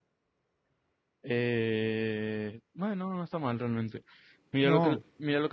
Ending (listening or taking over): listening